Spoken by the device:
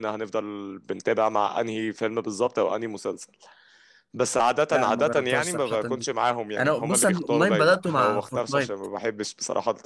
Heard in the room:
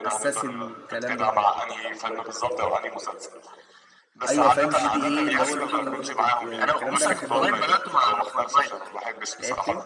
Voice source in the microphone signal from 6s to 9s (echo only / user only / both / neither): both